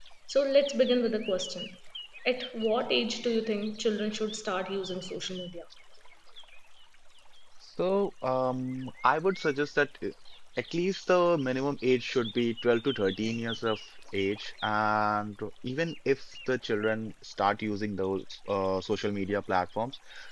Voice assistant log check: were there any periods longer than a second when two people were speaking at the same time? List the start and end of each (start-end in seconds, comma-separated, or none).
none